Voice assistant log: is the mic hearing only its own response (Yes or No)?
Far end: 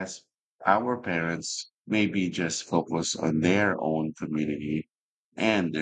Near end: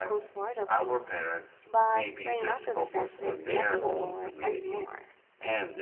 No